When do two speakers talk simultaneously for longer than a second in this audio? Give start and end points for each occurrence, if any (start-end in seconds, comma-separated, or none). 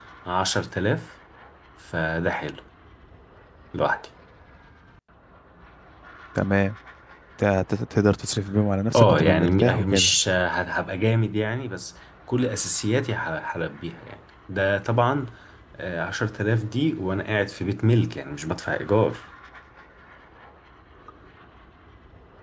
9.0-10.2